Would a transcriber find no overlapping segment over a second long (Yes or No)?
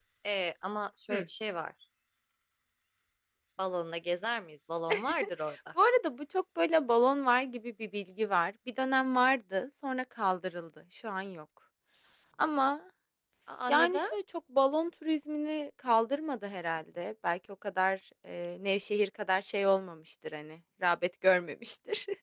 Yes